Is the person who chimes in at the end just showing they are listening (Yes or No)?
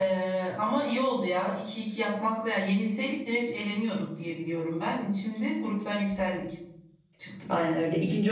No